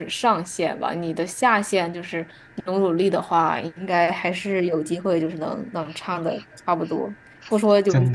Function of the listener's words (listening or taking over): listening